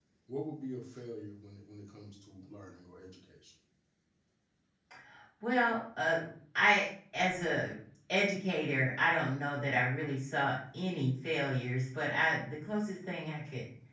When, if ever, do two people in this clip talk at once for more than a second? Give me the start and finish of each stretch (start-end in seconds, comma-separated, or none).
none